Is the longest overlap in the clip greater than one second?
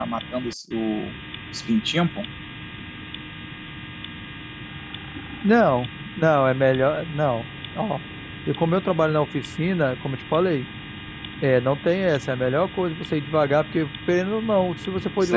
No

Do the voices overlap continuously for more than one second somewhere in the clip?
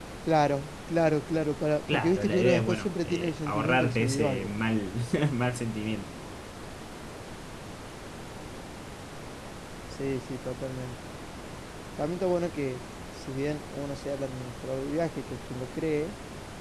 Yes, from 1.9 s

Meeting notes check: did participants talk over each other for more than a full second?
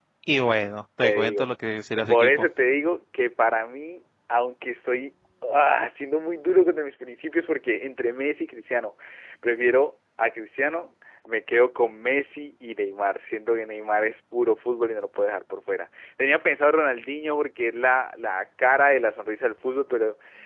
No

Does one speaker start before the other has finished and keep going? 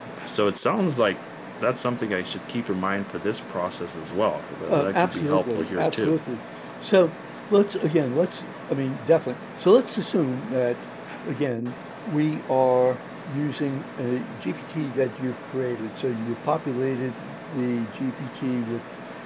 Yes, from 4.7 s

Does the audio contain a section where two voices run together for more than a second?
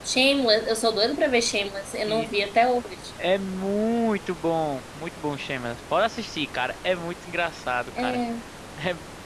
No

